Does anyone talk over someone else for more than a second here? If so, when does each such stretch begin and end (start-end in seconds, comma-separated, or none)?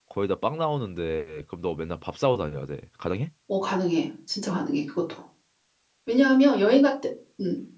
none